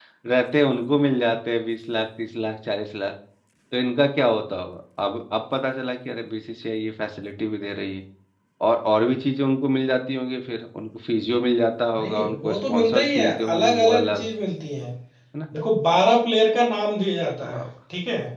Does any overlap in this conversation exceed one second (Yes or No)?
Yes